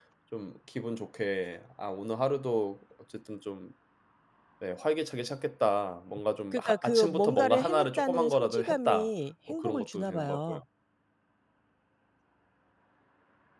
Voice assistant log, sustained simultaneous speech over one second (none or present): present